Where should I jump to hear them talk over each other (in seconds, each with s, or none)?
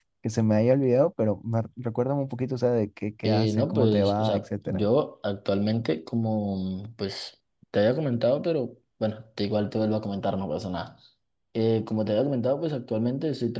3.2 s